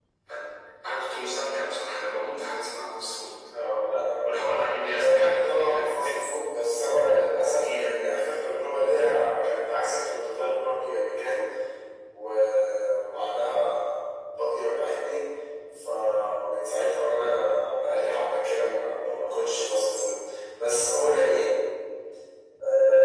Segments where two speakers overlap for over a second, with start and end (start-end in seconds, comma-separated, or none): 4.9-6.1